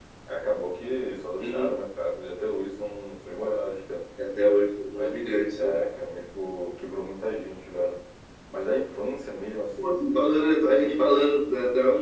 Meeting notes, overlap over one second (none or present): none